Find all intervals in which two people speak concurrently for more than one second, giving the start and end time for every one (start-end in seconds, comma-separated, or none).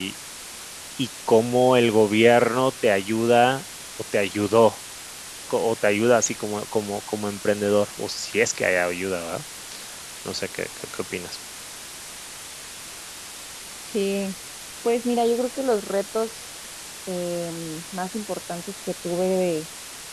none